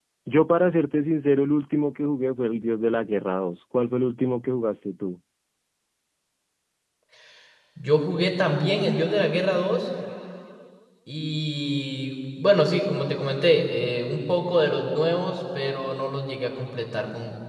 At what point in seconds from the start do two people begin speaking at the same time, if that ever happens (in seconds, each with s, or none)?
none